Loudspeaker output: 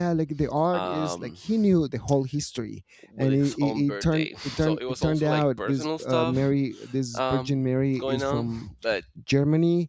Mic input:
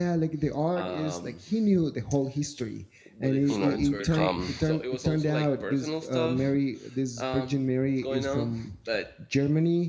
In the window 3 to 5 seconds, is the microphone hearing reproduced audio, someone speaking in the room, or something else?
both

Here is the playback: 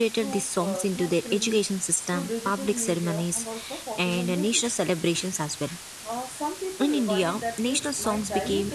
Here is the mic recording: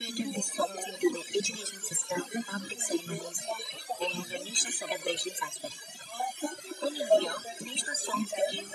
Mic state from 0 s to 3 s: echo only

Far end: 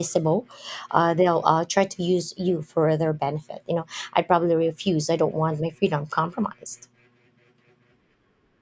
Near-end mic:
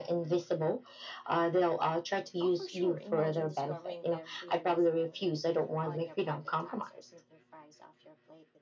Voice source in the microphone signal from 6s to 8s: both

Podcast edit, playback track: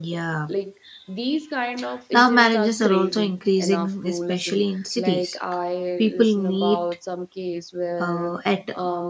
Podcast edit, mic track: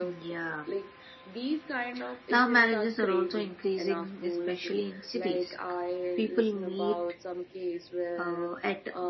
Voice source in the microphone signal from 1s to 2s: echo only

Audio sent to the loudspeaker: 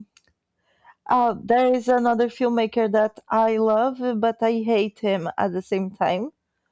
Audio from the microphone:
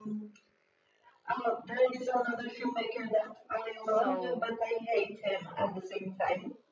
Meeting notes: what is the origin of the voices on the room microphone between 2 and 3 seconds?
echo only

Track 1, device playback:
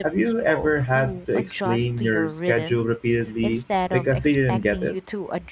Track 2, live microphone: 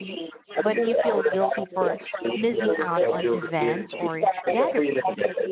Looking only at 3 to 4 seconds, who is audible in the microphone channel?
both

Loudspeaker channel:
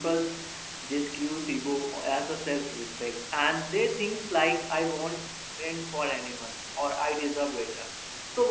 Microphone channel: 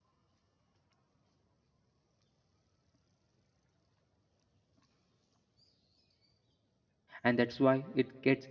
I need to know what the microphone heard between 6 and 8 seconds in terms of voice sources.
user only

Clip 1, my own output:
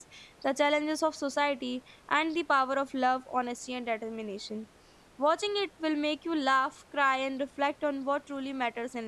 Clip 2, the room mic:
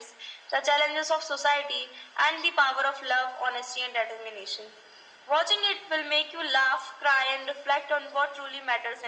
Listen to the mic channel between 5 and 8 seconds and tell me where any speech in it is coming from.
echo only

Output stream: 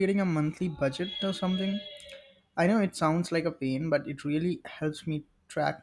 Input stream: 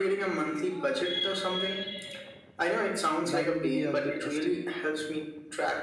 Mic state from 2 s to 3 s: echo only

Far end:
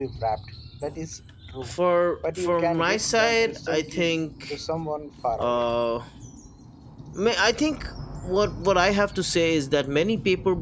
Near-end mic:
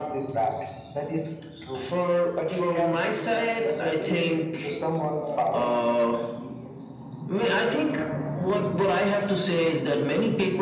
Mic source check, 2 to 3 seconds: echo only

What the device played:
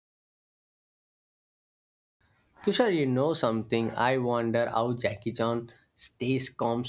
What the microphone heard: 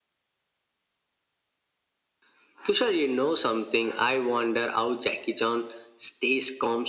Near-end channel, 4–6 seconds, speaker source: echo only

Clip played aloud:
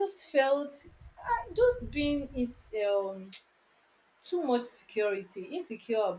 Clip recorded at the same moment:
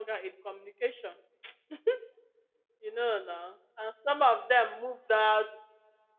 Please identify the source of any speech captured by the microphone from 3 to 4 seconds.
user only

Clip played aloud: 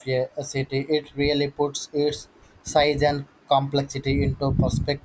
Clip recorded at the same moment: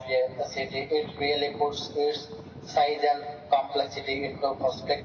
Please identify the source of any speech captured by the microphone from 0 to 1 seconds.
echo only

